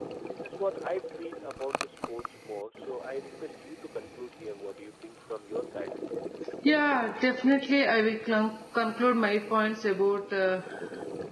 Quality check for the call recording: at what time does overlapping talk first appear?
none

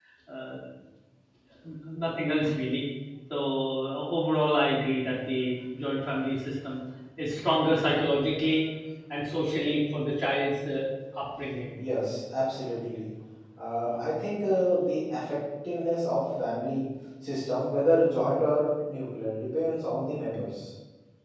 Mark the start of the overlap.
none

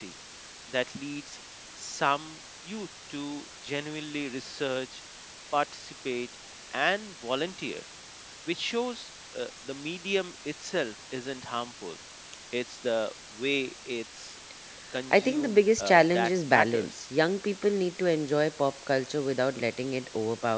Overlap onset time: 15 s

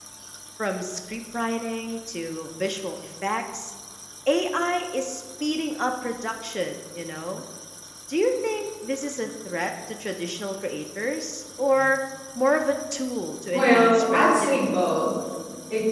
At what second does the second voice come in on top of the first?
14 s

